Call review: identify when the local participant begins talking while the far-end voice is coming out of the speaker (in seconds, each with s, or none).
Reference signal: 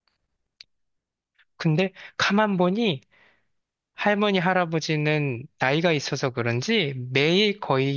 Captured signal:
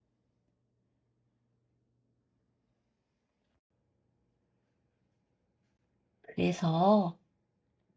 6.3 s